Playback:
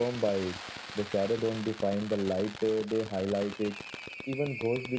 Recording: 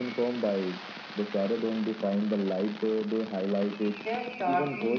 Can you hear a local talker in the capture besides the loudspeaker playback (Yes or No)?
Yes